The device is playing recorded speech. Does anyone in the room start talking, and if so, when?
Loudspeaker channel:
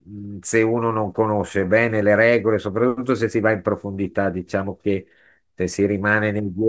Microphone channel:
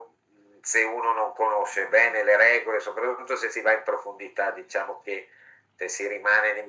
none

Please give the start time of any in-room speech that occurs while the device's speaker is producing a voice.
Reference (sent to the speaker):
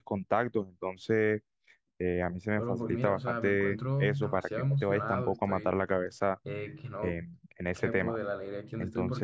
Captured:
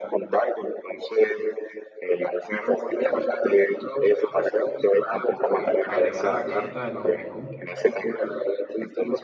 5.9 s

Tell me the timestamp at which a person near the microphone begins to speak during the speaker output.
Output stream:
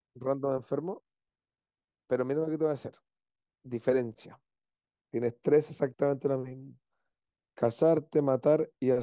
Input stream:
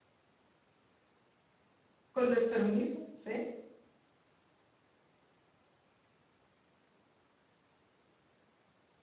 2.1 s

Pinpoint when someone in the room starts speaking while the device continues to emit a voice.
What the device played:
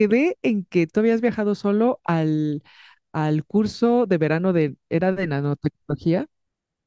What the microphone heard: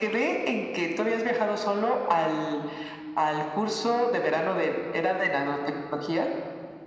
none

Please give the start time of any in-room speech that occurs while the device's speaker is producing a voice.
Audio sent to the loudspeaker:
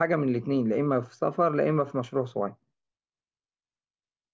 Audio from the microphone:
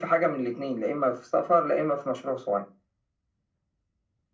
none

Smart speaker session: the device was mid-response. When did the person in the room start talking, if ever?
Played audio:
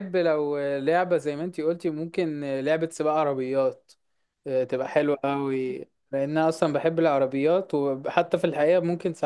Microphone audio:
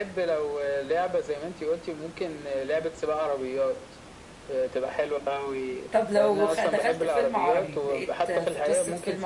5.9 s

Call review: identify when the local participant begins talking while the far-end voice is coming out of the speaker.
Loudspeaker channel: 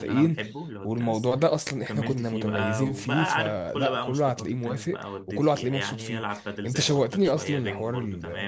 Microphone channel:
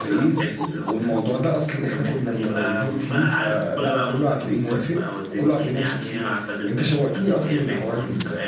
none

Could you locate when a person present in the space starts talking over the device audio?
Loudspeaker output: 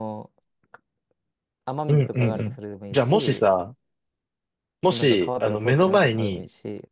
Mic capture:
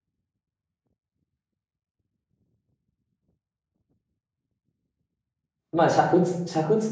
5.7 s

